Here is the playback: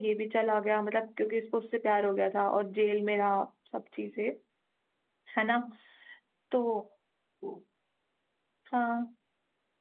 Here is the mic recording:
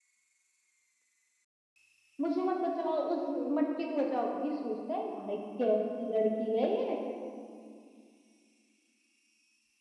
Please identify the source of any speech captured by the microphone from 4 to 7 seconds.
user only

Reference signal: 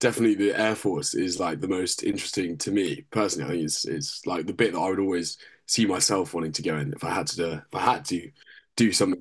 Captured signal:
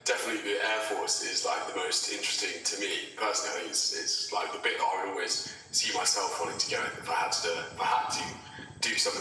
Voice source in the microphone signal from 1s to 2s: echo only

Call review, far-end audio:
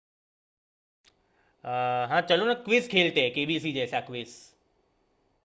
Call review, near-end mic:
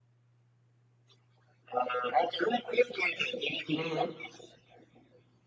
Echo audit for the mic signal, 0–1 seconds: neither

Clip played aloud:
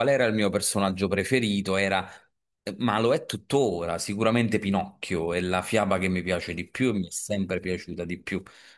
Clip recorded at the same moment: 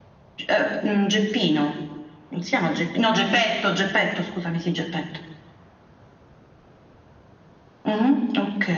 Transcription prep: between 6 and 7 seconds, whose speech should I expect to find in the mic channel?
neither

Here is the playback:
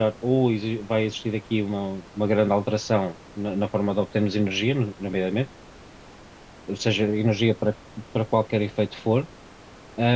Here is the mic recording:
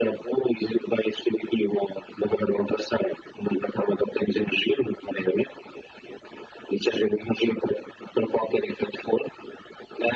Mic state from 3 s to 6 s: echo only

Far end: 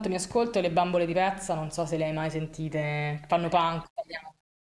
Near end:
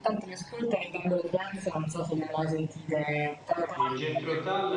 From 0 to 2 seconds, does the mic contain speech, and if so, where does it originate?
echo only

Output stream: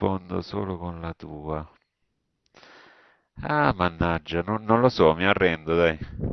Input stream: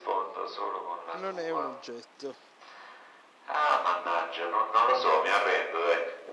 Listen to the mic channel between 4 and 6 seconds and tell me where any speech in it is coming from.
echo only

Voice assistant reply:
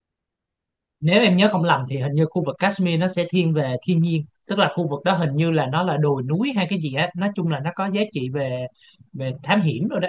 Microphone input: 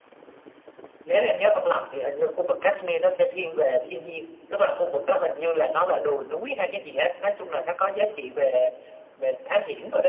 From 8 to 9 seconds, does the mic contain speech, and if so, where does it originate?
echo only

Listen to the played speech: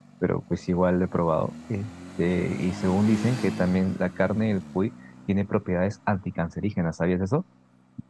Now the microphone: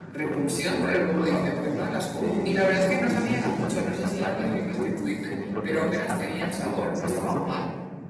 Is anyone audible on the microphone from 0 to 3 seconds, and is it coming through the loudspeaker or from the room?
both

